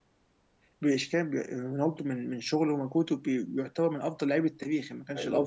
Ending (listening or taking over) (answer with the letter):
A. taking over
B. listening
A